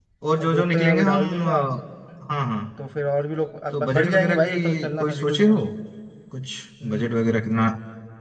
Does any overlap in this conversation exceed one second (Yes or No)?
Yes